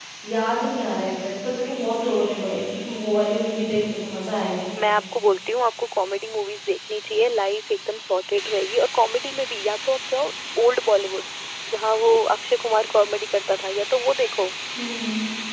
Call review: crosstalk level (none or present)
none